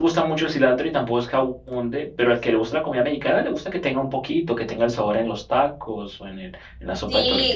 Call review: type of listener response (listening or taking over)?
taking over